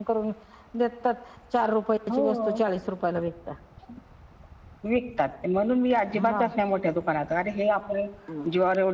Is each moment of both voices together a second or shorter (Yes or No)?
Yes